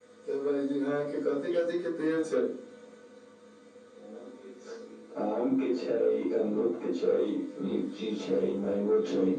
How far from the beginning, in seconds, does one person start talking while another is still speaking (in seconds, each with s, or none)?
none